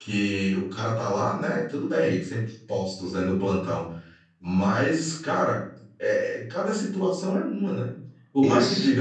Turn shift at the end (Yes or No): No